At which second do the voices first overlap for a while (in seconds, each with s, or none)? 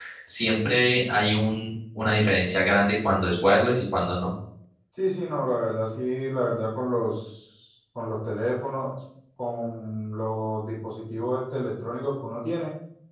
none